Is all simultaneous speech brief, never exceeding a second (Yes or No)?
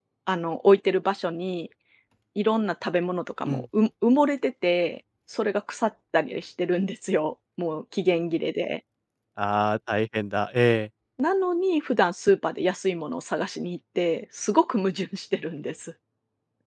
Yes